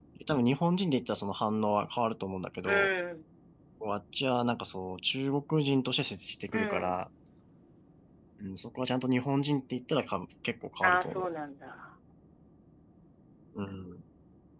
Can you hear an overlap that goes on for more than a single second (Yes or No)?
No